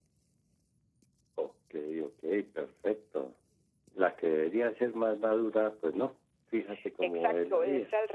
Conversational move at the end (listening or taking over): taking over